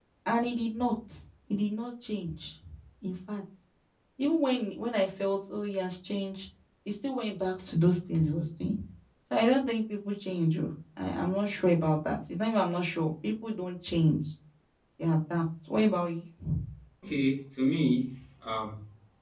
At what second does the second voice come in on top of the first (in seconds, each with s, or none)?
none